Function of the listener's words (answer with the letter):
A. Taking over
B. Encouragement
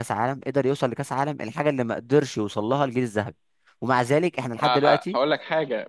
A